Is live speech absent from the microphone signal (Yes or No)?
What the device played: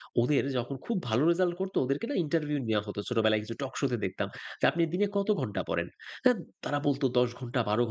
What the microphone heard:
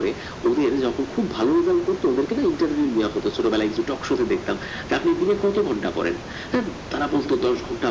Yes